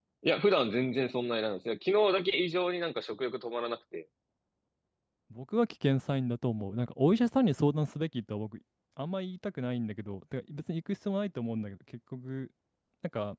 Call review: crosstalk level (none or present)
none